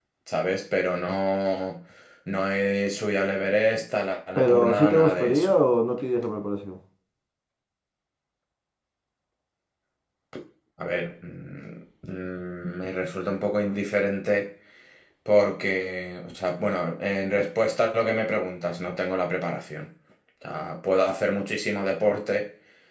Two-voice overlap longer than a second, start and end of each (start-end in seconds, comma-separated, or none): 4.3-5.5